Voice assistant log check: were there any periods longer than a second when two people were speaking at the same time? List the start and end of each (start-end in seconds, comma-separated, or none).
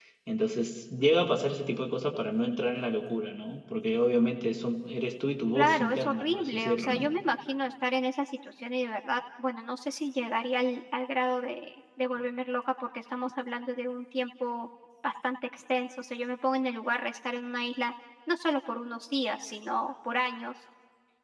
5.5-7.1